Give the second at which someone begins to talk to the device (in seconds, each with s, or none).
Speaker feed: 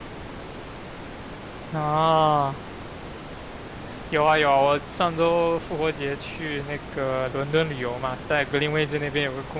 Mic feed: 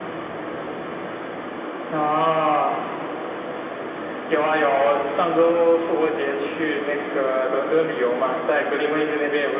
none